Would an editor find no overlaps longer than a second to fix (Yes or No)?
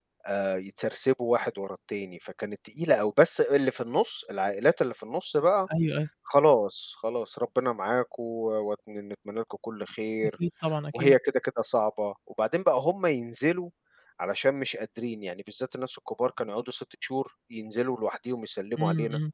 Yes